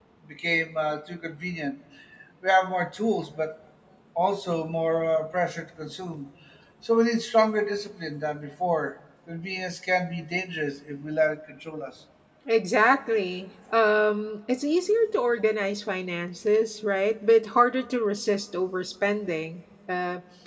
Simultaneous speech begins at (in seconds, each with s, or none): none